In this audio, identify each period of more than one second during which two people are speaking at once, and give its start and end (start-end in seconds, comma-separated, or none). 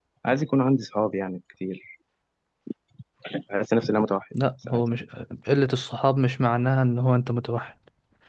none